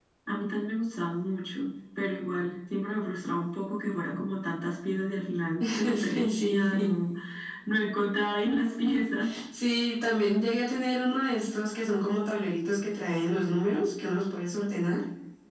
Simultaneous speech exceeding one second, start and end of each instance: 5.6-6.9

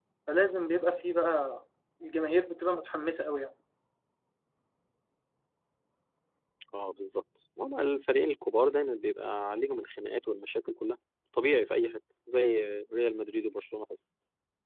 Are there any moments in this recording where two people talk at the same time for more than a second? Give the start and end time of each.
none

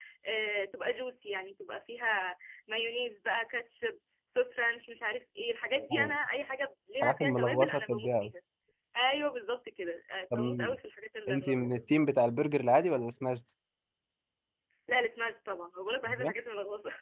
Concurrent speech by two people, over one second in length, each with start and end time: 7.0-8.3

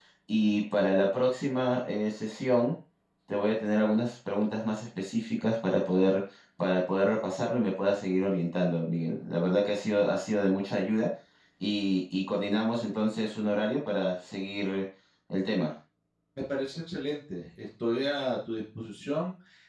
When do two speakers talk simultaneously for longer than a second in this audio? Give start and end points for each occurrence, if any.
none

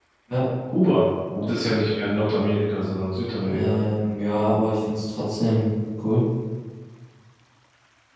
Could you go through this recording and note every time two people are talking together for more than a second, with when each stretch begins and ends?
none

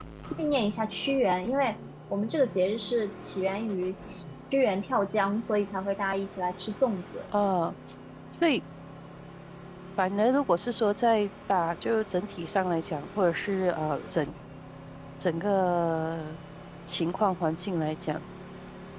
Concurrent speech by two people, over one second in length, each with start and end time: none

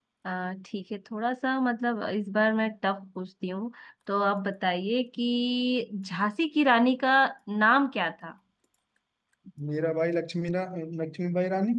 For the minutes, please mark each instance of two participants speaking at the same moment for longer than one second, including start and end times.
none

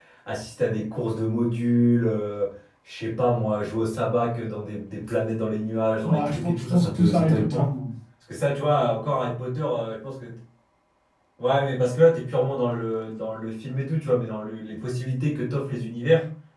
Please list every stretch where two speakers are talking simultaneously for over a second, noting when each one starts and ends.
6.0-7.7

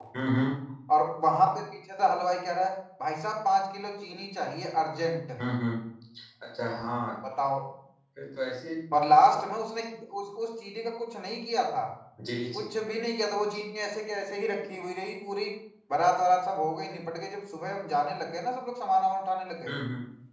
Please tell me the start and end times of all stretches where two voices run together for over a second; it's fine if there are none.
none

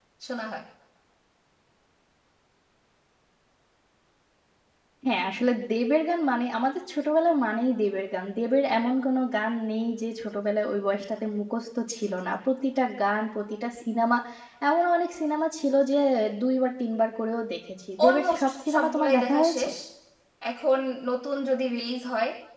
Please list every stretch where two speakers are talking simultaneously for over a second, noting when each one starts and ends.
18.0-19.7

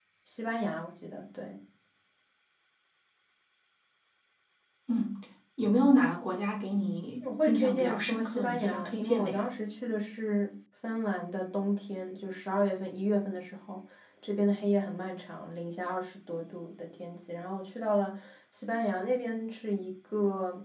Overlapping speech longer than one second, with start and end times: 7.2-9.4

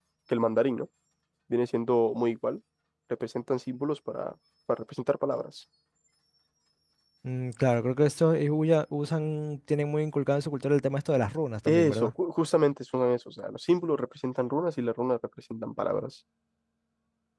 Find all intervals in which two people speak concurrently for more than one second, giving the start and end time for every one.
none

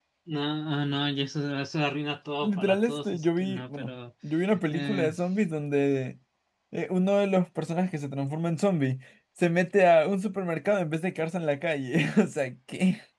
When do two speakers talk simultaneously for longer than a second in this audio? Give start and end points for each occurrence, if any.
2.4-3.9

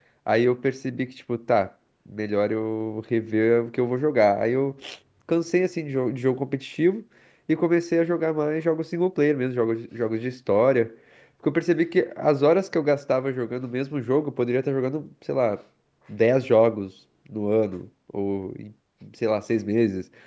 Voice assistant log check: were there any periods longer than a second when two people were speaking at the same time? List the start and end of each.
none

